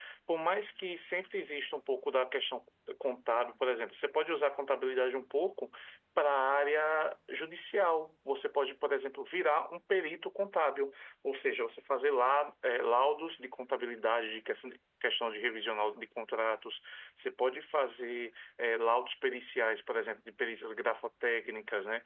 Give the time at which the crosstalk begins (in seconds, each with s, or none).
none